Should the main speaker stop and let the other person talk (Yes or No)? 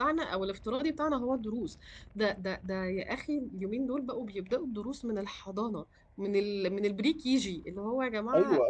Yes